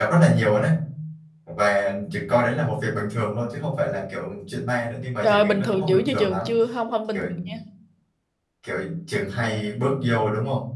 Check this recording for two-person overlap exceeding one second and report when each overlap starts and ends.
5.2-6.5

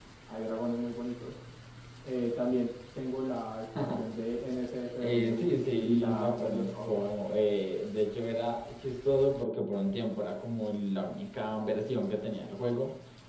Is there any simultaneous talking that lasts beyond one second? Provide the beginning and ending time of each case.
5.0-7.1

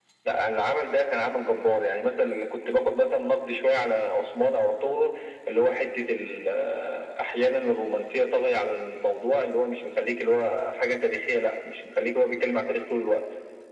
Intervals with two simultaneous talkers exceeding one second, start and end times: none

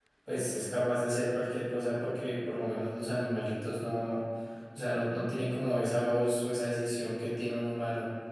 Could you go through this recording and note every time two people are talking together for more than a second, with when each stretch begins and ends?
none

